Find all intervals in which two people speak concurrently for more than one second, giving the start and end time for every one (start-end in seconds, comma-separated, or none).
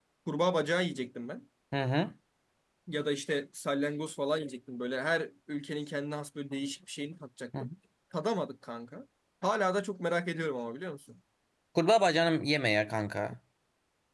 none